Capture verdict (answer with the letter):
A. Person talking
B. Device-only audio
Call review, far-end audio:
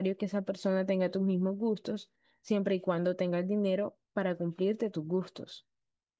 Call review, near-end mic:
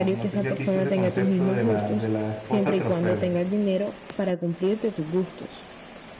A